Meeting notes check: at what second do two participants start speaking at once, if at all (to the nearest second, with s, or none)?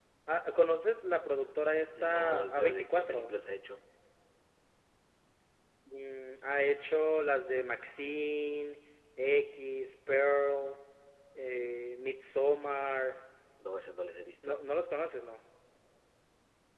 2 s